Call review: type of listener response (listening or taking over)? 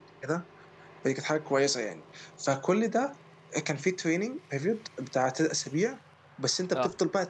listening